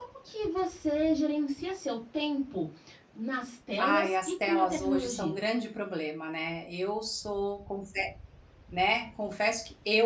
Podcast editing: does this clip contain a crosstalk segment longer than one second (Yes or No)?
Yes